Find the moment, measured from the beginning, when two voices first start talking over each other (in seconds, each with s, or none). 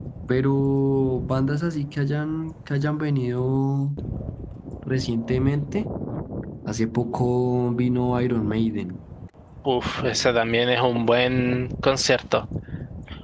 none